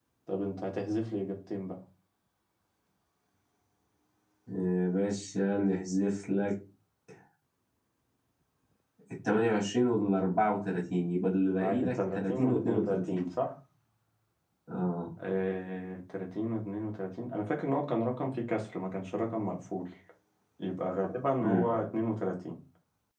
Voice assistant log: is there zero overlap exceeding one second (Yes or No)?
No